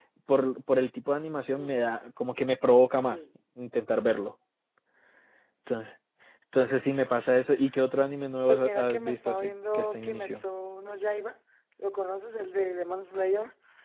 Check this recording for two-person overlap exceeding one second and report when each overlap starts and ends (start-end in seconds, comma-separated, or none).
8.5-10.4